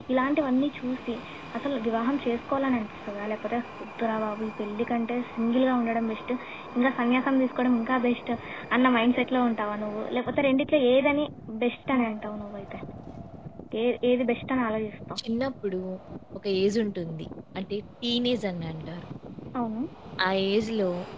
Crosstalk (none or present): none